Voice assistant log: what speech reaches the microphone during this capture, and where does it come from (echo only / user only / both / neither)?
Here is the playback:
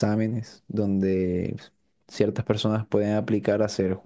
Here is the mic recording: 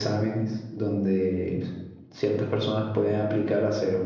echo only